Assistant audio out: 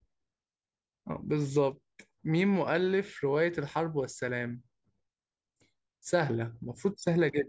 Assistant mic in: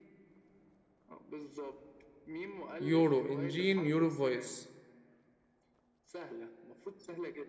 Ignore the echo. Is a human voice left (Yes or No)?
Yes